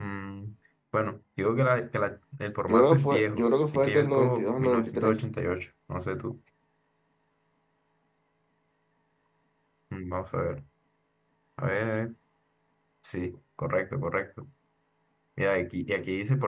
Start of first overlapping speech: 2.7 s

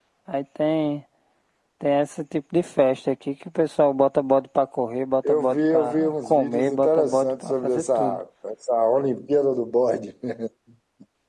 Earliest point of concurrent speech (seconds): 5.2 s

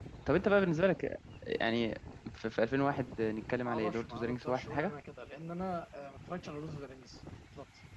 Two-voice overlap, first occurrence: 3.6 s

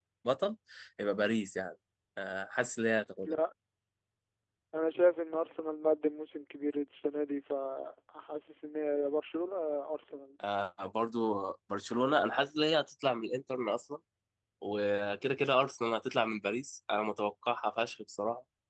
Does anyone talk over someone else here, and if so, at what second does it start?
none

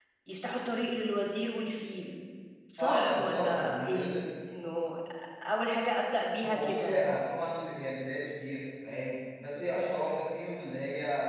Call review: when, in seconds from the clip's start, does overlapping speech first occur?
2.8 s

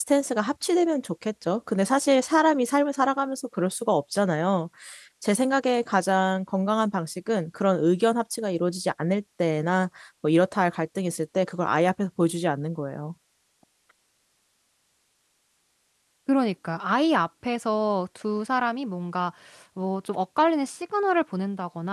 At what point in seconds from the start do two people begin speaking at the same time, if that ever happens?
none

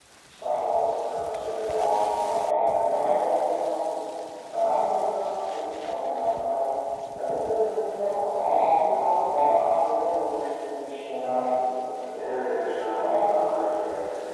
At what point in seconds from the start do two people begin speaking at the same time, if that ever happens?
12.1 s

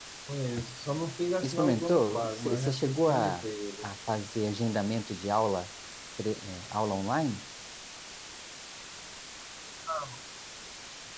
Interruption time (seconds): 1.4 s

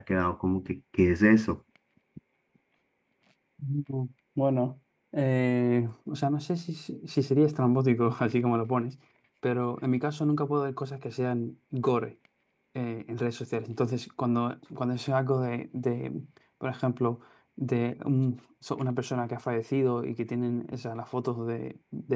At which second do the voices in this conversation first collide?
none

